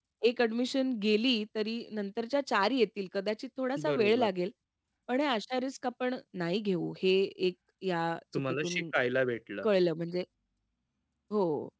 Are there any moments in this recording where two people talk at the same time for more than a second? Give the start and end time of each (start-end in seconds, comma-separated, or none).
none